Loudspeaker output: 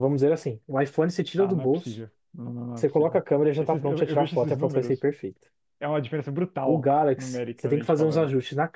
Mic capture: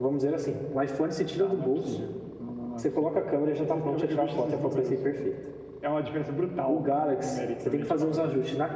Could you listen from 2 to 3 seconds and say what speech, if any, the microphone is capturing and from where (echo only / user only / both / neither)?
echo only